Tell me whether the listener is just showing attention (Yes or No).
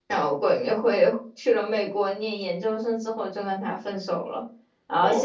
Yes